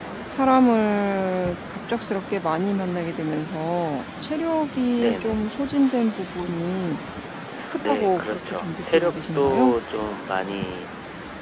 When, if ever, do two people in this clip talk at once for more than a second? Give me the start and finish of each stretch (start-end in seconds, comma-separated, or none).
7.9-9.8